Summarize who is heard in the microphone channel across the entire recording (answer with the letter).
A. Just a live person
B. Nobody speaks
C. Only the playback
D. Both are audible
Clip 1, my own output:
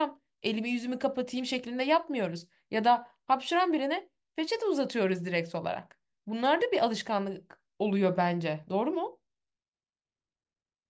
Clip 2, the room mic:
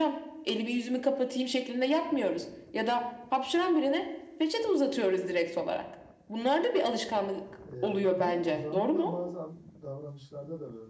D